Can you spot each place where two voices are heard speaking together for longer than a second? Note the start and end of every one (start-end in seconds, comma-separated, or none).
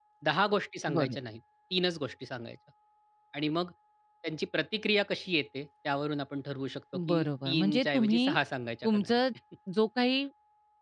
7.1-8.4